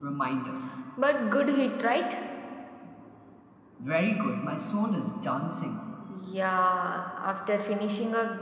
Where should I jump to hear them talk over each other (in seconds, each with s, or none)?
none